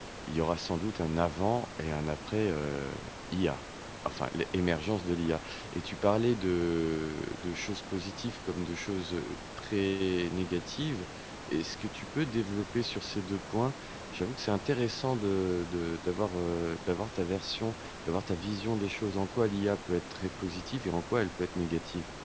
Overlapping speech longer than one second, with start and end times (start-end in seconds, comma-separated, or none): none